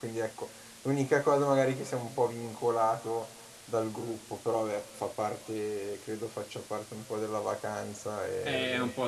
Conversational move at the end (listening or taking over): taking over